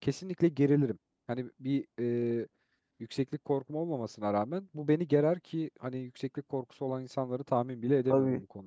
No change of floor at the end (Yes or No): No